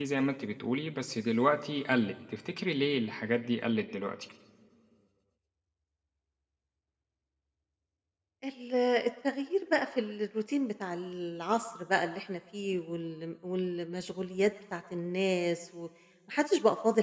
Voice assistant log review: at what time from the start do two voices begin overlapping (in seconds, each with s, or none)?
none